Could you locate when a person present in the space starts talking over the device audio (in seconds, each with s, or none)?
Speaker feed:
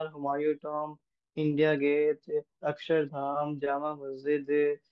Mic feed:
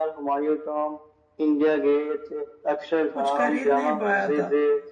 3.1 s